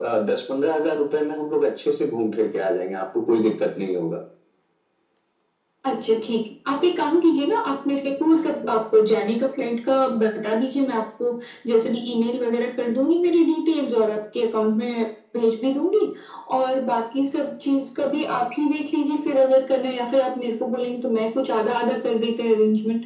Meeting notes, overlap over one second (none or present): none